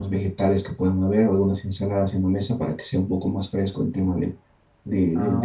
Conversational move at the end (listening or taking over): taking over